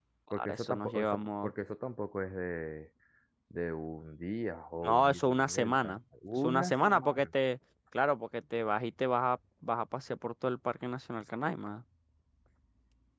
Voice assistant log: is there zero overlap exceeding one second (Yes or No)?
No